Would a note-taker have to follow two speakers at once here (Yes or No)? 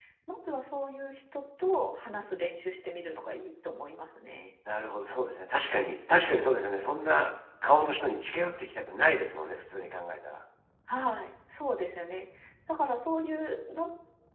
No